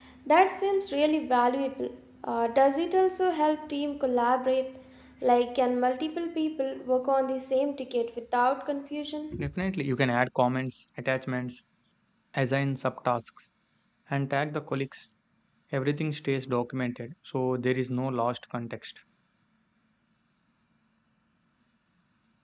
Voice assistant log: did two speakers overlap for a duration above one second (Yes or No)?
No